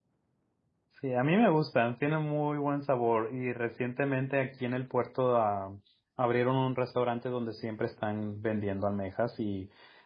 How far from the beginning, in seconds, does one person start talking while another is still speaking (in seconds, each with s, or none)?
none